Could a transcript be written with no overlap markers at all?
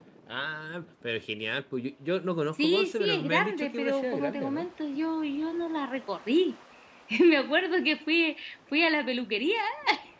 No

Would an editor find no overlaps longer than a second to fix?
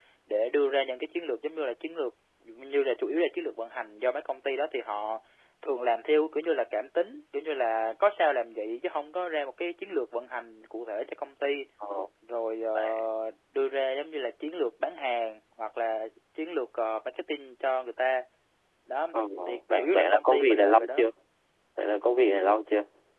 No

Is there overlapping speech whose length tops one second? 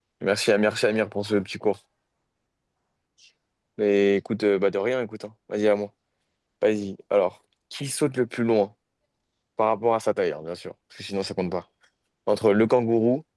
No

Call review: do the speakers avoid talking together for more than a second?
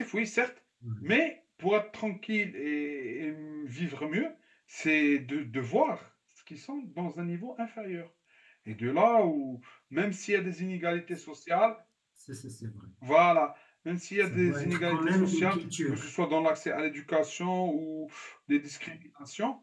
No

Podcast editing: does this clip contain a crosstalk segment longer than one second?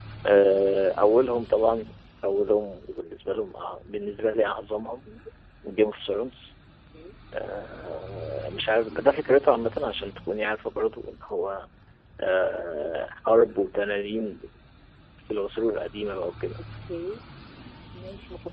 No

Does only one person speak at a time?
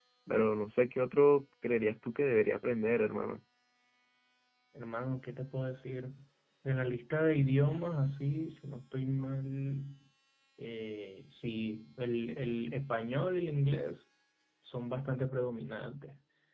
Yes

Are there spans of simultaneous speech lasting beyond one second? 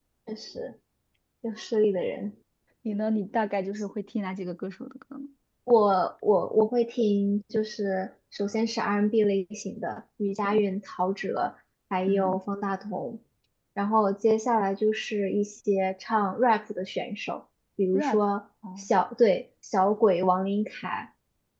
No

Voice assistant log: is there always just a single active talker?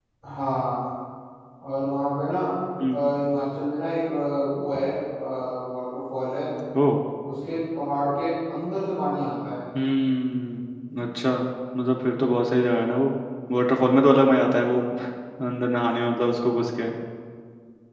Yes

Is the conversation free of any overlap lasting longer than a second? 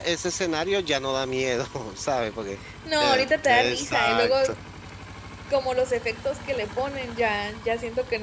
No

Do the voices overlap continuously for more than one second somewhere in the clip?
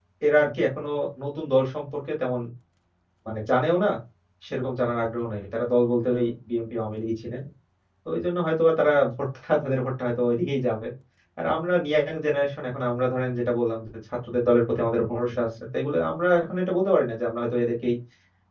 No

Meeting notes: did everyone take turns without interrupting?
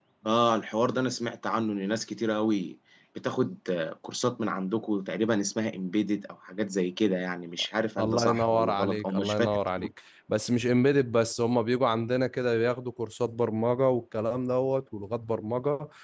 No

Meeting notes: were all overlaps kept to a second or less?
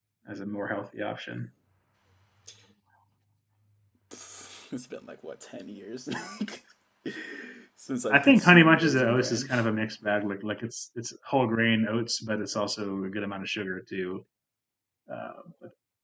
No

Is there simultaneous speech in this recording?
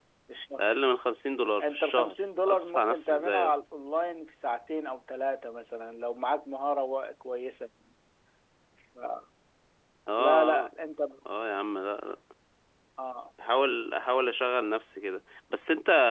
Yes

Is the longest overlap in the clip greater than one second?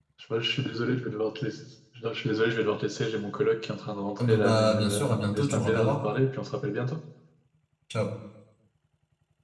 Yes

